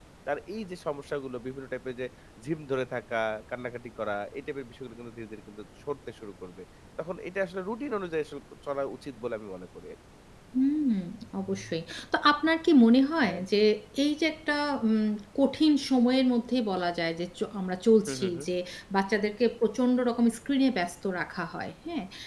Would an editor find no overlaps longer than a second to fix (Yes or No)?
Yes